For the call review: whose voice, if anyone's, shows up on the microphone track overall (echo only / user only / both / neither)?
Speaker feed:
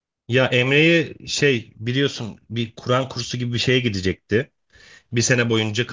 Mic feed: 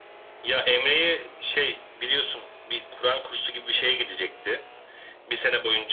echo only